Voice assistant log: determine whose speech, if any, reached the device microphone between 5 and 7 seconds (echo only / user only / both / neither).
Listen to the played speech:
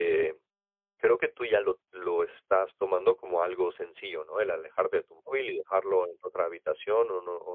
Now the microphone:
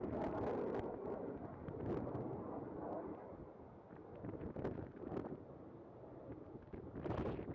neither